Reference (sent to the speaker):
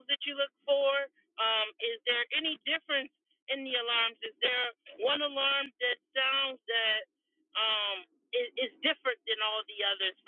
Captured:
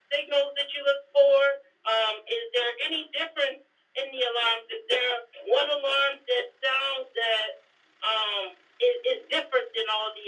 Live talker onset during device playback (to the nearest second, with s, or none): none